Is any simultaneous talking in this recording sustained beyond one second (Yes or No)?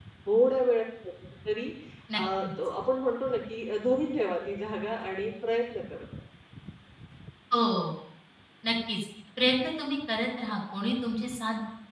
No